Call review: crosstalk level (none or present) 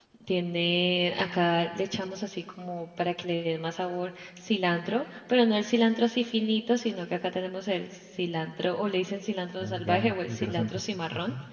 present